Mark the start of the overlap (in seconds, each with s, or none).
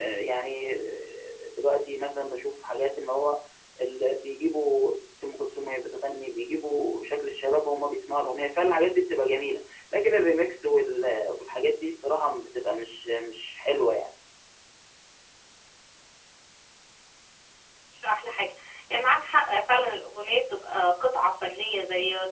none